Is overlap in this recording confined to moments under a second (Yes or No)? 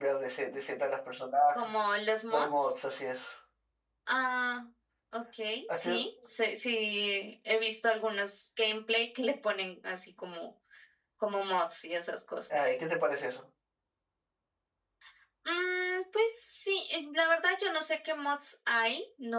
Yes